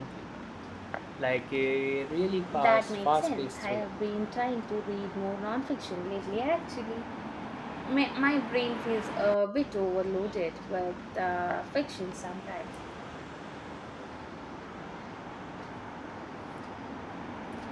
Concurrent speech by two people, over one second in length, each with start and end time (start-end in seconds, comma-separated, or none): 2.6-3.9